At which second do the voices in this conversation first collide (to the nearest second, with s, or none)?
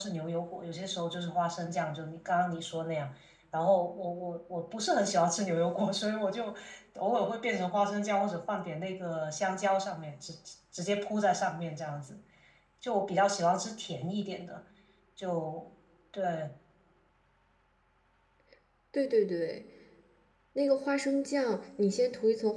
none